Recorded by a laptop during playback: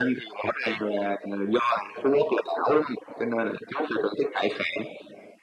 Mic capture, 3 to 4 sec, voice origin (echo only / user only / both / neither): echo only